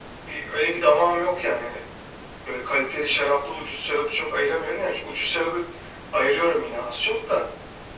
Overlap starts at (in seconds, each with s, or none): none